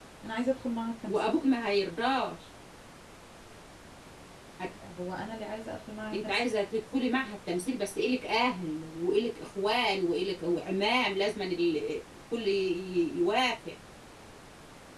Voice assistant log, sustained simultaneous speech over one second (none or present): none